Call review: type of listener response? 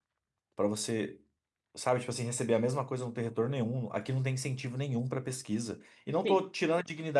listening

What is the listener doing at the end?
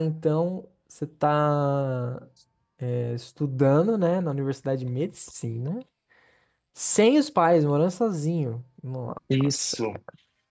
listening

